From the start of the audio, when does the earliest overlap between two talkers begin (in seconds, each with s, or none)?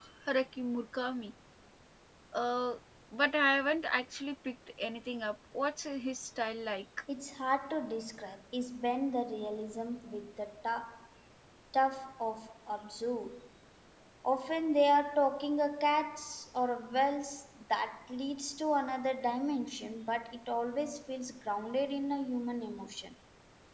none